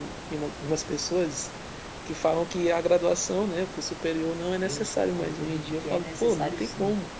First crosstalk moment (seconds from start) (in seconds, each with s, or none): 4.6 s